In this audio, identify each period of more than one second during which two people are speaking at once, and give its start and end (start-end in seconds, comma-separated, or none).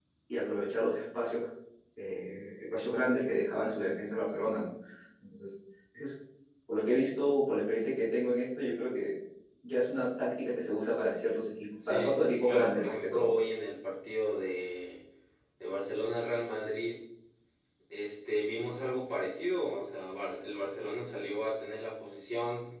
11.9-13.3